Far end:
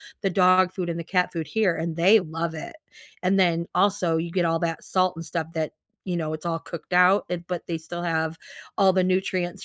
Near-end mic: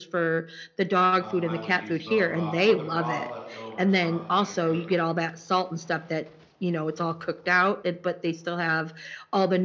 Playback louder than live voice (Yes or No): Yes